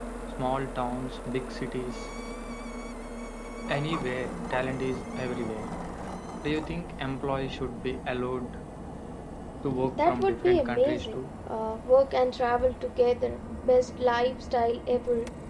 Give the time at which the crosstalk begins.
9.9 s

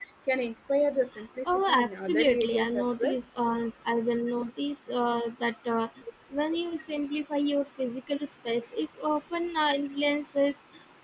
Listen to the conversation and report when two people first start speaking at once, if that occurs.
1.4 s

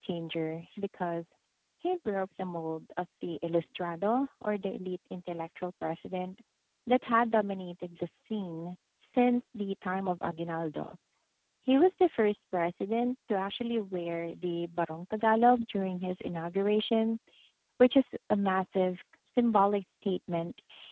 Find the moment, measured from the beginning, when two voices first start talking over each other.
none

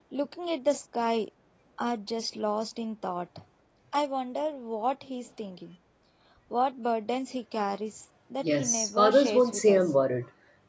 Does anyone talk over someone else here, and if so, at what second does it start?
8.4 s

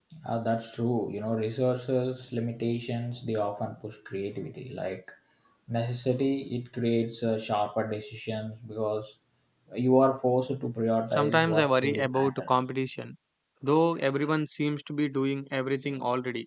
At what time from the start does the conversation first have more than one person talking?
11.1 s

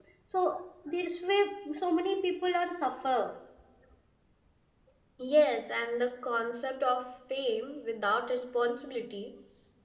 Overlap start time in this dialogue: none

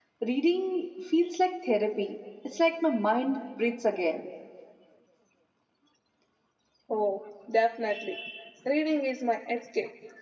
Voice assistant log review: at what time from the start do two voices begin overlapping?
none

